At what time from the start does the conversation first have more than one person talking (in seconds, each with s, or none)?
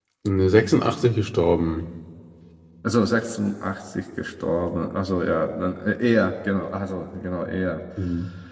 none